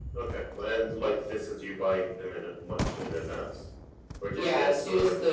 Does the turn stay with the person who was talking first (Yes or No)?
No